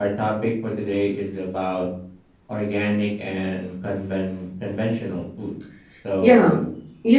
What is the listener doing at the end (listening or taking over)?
taking over